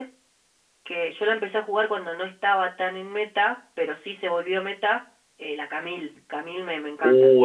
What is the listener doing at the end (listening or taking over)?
taking over